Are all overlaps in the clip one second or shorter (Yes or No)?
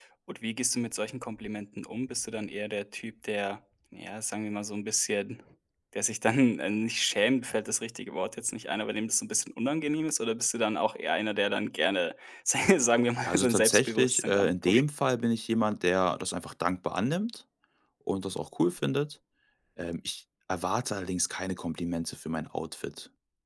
No